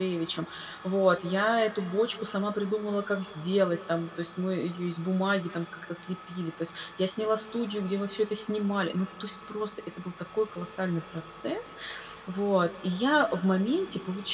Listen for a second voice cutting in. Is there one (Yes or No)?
No